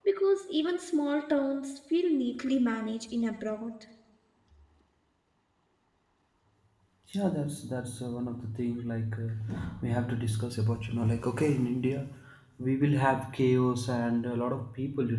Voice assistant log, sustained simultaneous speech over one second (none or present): none